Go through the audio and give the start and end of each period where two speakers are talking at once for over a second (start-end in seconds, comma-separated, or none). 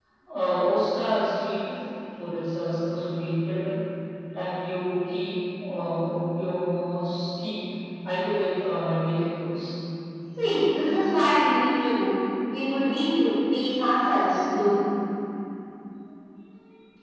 none